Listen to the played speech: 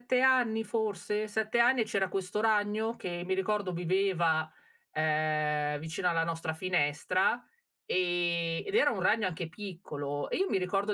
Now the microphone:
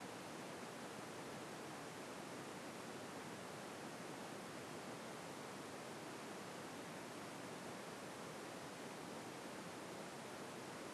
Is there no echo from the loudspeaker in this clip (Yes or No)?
Yes